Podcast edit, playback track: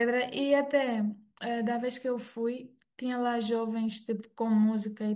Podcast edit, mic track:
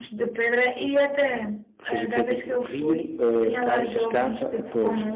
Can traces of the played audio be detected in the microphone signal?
Yes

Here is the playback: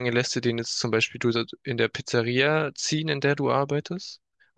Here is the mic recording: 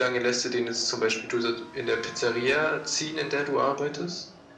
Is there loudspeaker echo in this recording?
Yes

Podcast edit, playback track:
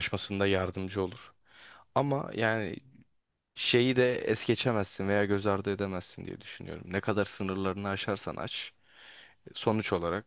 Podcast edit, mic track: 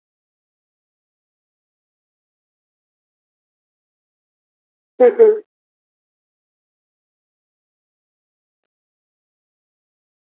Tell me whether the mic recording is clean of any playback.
Yes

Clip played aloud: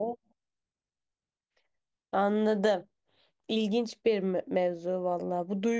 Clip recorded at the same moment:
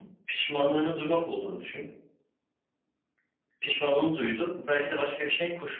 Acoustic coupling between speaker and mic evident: No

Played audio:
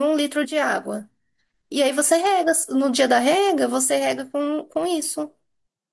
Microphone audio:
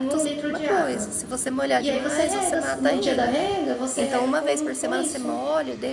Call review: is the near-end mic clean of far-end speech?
No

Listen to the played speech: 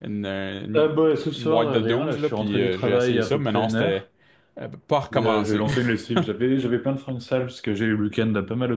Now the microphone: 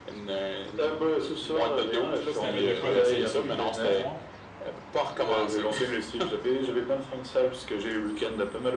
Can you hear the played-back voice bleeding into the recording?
Yes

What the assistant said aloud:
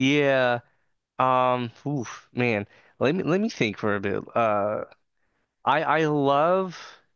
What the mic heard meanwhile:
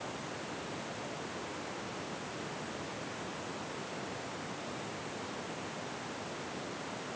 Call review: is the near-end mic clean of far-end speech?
Yes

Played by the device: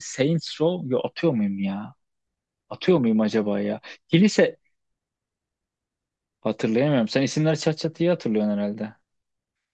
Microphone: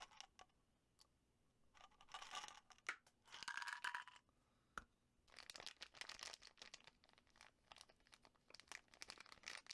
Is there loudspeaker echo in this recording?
No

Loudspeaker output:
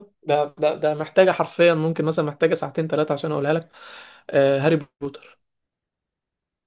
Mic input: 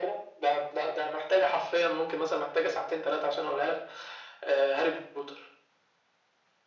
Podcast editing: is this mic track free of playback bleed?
No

